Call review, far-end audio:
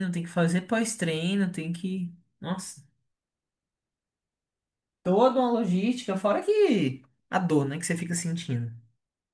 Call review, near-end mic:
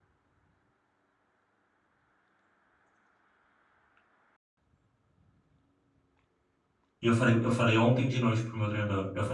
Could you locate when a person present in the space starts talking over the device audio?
7 s

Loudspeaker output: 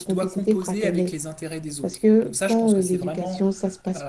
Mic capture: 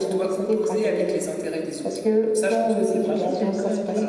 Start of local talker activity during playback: 3 s

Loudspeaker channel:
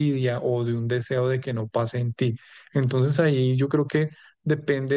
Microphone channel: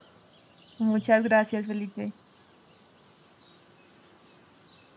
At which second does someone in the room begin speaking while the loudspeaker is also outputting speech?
1 s

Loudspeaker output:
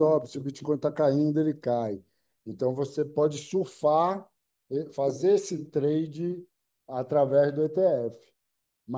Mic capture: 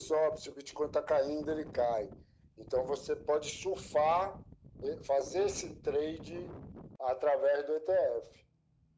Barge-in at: none

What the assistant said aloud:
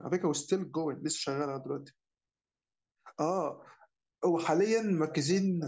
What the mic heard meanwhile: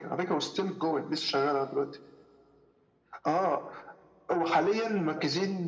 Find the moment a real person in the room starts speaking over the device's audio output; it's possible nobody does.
none

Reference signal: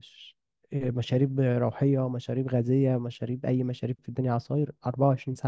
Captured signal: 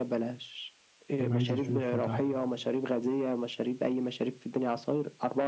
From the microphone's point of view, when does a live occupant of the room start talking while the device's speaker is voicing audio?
1 s

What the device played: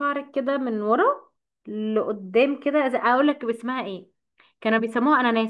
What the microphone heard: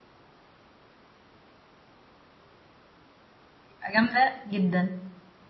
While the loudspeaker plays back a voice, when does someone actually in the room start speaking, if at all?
4 s

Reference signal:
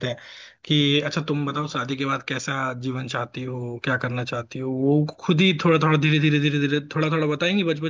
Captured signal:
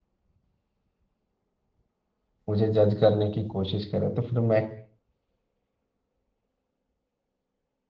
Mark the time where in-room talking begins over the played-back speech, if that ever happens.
2 s

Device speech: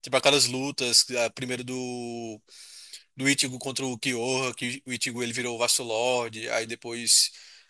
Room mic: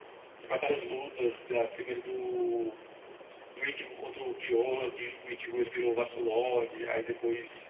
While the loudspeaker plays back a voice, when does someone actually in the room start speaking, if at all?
none

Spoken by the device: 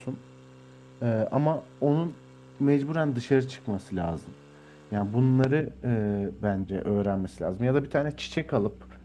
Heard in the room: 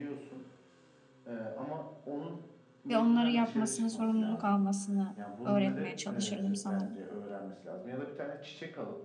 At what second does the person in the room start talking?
3 s

